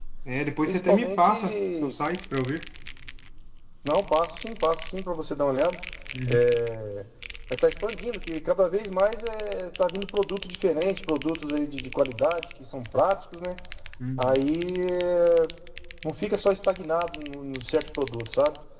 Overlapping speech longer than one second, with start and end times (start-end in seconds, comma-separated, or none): 0.7-1.9